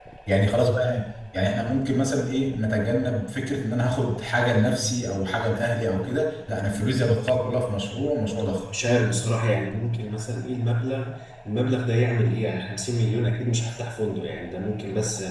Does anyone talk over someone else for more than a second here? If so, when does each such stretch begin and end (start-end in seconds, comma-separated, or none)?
none